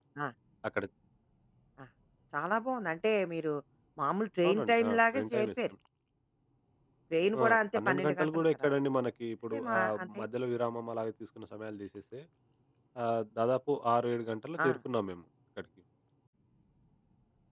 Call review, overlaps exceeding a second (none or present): present